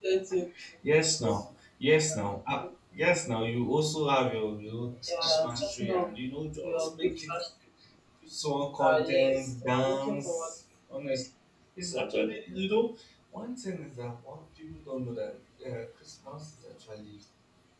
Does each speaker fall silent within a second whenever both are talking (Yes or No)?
No